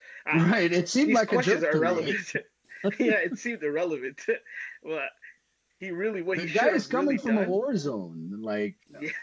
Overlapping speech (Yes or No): Yes